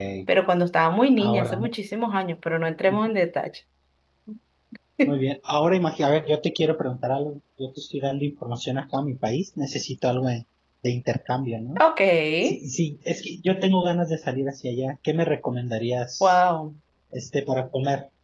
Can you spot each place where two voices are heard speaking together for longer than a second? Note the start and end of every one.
none

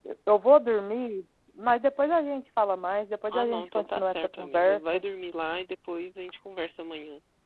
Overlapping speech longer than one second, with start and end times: 3.3-5.0

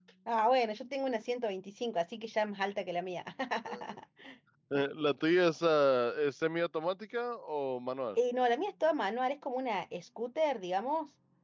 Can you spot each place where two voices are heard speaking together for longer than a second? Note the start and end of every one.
none

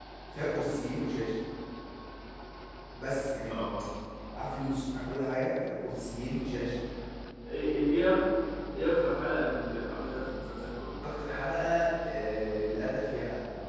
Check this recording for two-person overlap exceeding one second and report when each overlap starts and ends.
none

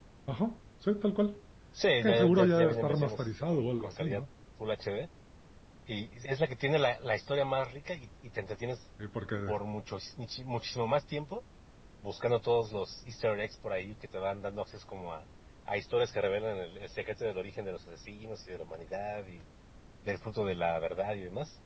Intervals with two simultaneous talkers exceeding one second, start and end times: 2.0-4.2

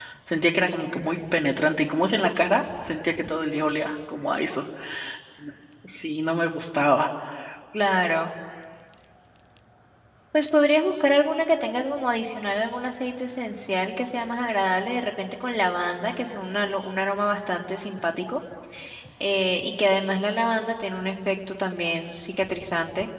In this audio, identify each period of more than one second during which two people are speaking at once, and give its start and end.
none

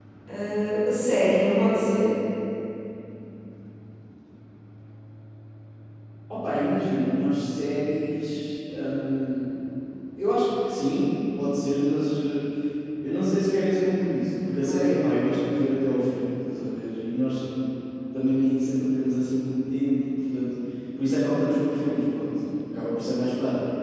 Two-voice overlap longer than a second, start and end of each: none

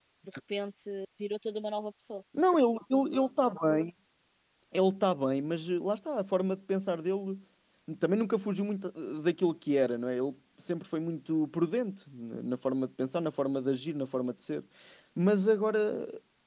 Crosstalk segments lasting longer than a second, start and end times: none

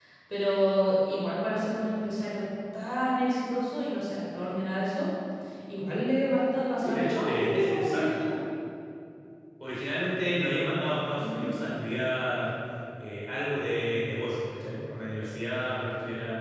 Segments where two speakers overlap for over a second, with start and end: 6.8-8.1

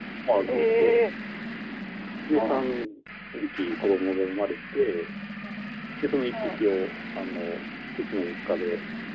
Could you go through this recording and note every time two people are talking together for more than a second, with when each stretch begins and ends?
none

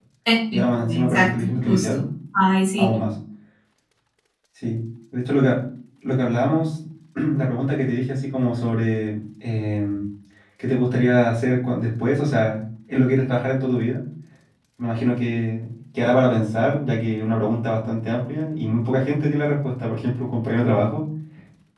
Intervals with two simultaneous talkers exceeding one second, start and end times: 0.5-2.0

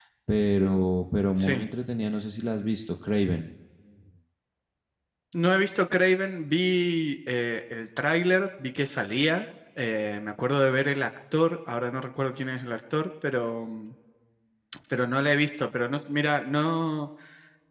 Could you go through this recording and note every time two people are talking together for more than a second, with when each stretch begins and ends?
none

